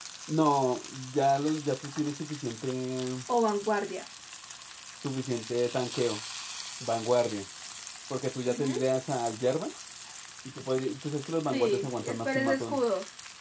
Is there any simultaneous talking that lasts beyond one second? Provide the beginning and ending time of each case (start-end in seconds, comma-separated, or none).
11.5-12.8